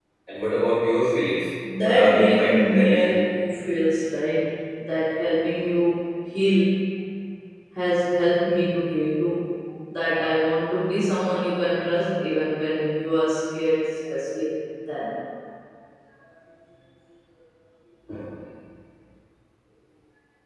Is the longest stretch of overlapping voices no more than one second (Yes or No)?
No